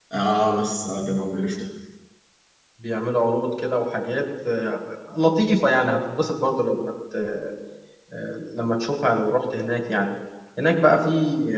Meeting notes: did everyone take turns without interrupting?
Yes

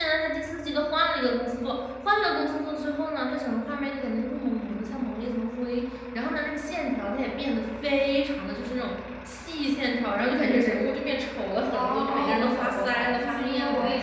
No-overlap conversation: No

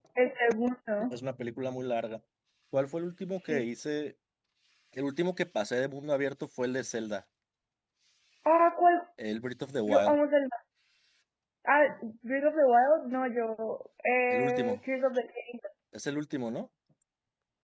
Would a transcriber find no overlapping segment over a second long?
Yes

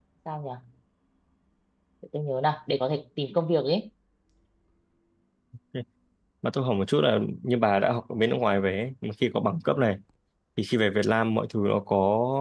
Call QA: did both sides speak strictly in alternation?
Yes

